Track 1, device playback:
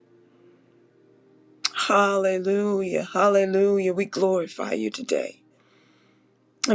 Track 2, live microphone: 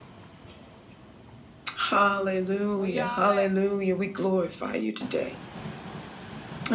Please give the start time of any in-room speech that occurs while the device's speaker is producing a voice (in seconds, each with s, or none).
2.8 s